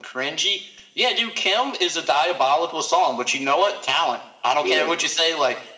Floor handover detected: No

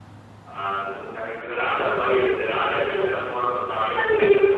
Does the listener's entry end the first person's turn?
Yes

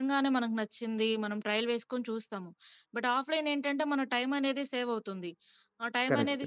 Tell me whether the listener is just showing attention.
Yes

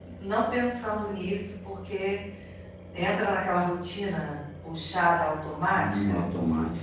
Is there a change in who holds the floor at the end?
Yes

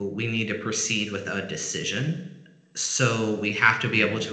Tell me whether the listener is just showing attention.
Yes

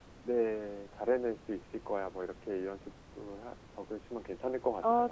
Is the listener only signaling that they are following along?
No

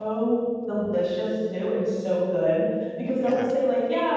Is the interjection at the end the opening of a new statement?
No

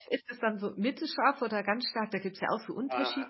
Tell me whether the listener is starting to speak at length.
Yes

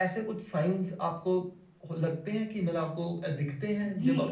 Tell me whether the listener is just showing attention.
No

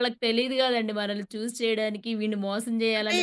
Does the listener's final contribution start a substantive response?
No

